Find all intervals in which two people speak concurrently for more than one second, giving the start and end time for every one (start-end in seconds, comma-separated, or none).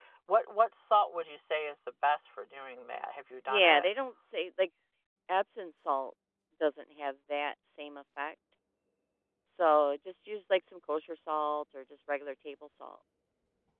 none